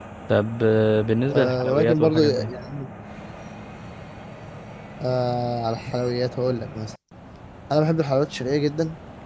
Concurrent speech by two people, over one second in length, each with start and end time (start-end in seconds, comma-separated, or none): 1.3-2.5